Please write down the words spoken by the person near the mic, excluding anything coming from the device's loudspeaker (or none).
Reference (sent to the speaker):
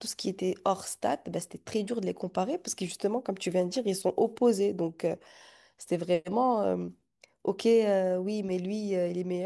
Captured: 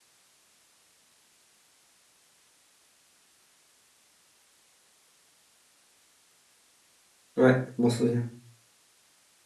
Ouais, je m'en souviens.